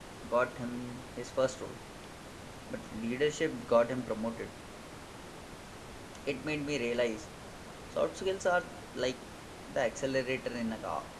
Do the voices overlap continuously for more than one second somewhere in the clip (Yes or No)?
No